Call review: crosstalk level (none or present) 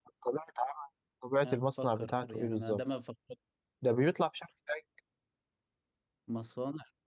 present